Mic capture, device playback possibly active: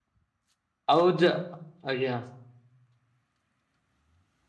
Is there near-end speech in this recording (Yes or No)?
Yes